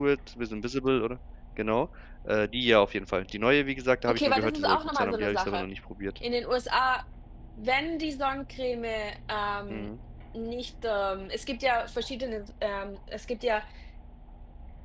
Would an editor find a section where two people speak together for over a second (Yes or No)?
Yes